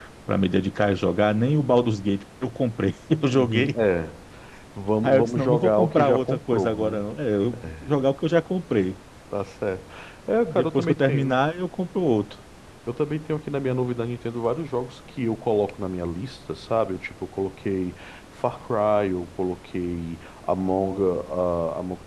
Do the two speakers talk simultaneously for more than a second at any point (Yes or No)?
Yes